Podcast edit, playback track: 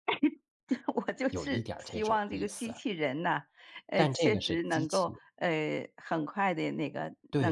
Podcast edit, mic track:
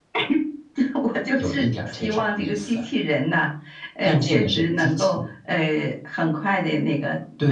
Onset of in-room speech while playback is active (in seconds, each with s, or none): none